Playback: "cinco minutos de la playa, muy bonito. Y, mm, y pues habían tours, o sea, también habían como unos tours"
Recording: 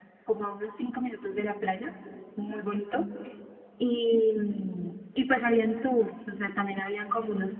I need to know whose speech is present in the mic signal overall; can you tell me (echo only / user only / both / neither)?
echo only